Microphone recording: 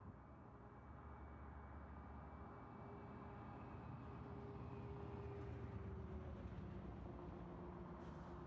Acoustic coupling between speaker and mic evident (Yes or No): No